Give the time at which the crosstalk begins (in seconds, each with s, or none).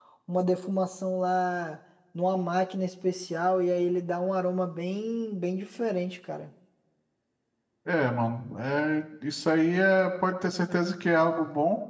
none